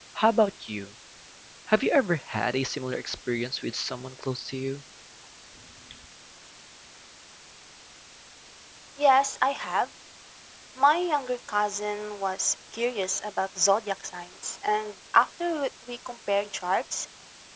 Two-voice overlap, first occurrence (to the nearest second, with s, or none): none